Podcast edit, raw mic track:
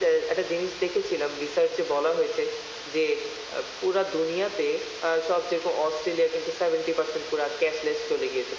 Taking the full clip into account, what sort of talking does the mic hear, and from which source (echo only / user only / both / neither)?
echo only